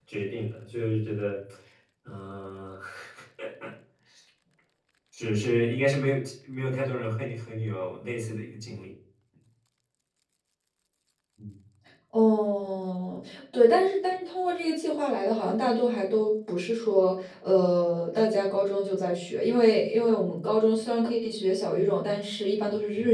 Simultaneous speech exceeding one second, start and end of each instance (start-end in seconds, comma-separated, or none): none